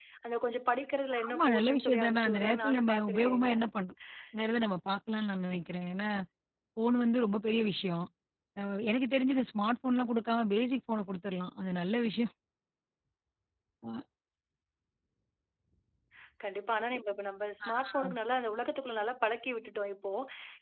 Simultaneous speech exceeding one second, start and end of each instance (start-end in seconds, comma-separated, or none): 1.3-3.5